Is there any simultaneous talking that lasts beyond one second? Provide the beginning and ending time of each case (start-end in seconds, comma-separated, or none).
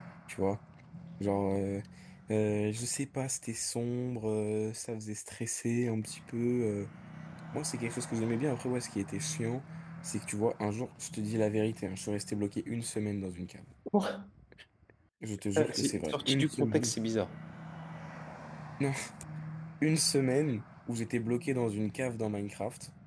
15.6-16.9